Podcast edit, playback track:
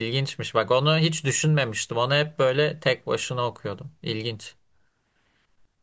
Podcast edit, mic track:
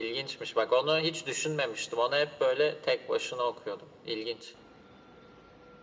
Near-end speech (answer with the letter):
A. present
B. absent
B